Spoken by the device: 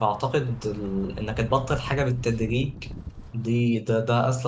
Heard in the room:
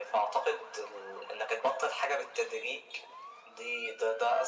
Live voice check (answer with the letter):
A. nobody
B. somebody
A